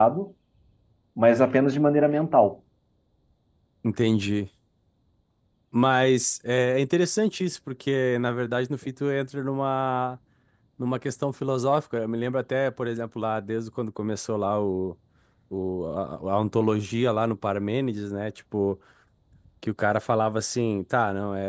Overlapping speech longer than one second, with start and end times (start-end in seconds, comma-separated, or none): none